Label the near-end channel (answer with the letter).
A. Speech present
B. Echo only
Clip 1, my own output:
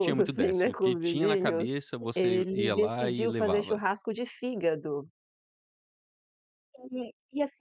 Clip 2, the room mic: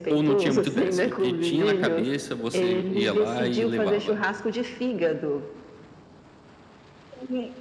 B